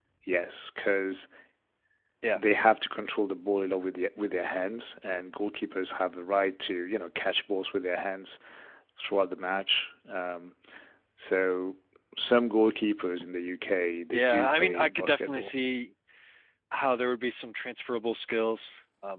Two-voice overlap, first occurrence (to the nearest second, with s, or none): 14 s